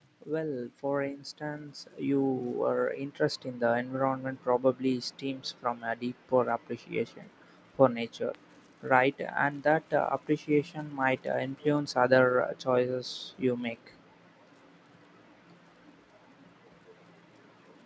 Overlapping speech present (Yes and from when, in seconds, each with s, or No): No